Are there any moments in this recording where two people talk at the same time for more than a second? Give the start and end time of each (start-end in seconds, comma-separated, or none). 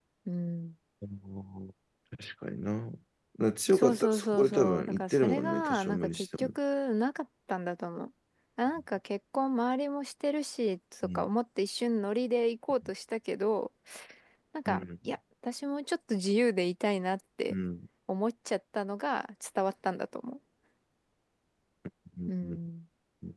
3.7-6.5